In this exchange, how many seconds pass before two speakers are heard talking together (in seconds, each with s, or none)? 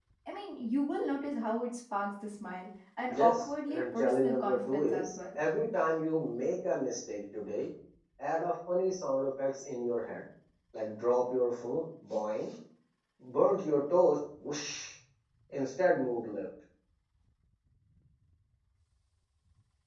3.1 s